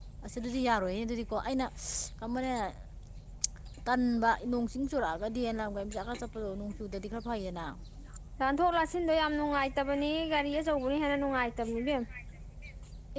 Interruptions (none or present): none